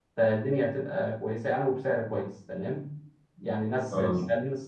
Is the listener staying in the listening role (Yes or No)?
Yes